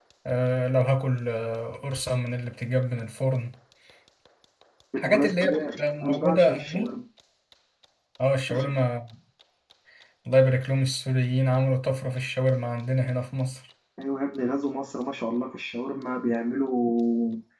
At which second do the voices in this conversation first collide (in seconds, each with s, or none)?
5.0 s